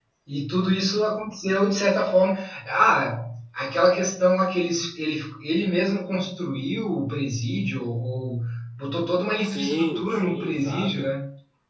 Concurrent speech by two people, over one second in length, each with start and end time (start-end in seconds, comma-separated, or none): 9.4-11.1